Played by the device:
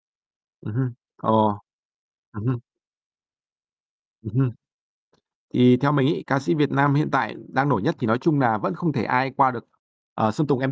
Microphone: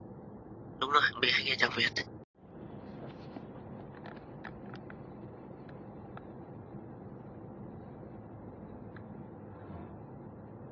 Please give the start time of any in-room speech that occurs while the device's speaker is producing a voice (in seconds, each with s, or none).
0.8 s